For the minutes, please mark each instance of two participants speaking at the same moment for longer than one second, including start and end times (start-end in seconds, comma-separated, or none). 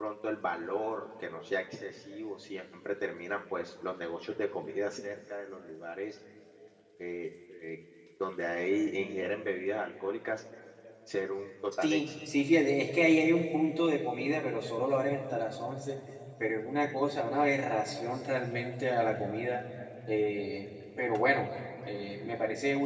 none